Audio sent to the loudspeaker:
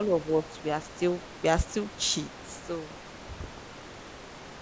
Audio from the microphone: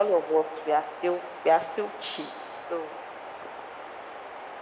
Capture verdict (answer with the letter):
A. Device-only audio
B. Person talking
A